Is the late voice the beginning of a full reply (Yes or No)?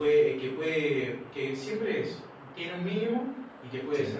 No